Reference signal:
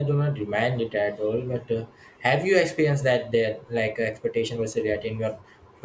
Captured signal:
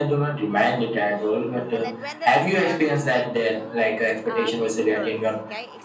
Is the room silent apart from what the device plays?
No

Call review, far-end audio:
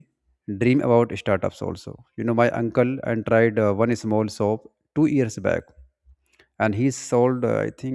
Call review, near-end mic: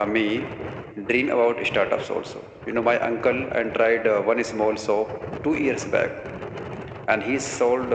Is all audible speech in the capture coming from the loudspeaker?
Yes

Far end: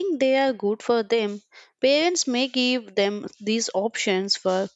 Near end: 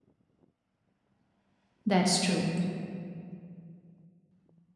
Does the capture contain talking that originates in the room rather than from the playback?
Yes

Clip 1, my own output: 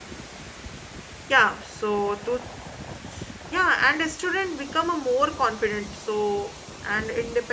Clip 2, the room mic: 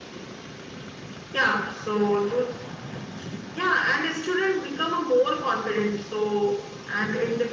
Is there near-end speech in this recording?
No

